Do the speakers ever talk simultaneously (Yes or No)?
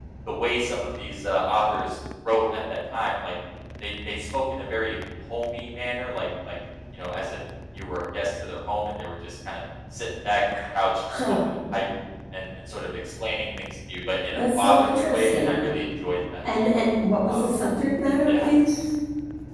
Yes